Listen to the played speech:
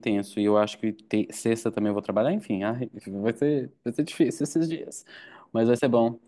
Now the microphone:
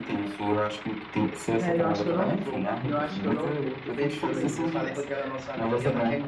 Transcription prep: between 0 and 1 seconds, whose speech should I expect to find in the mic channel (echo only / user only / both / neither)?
echo only